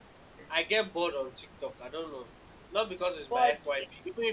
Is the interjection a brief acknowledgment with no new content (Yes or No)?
Yes